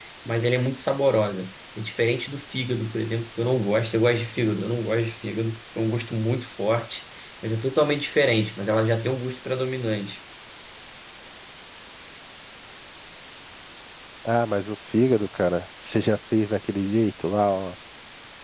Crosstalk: none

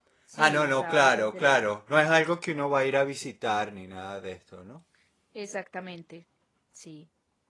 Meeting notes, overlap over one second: present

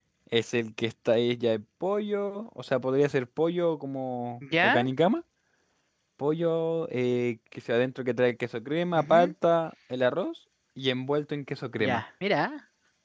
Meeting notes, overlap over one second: none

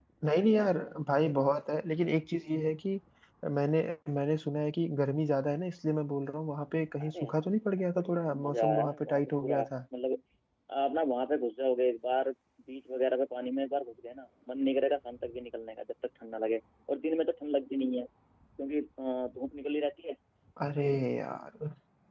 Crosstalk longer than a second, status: present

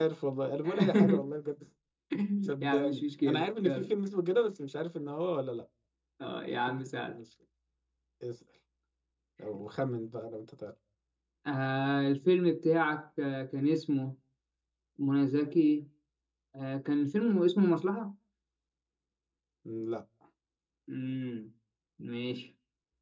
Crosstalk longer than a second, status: present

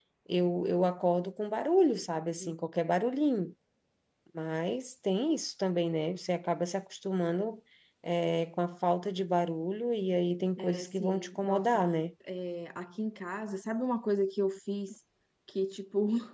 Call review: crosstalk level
present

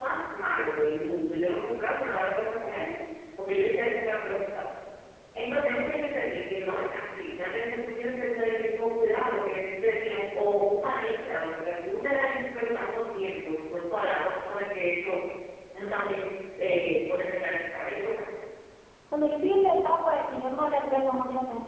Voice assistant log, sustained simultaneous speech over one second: none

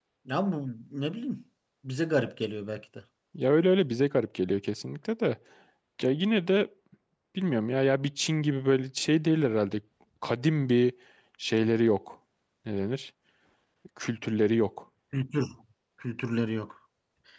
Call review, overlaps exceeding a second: none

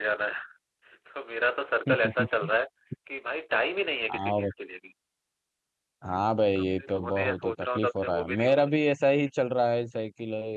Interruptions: present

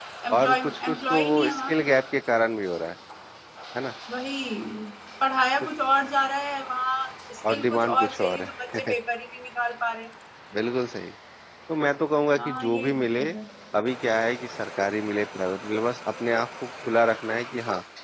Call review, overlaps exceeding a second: present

